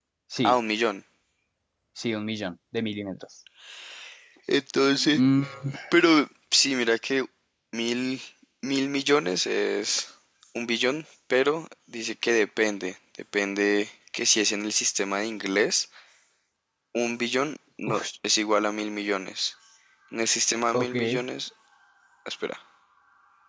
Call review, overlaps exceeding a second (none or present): none